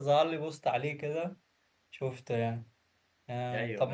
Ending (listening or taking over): listening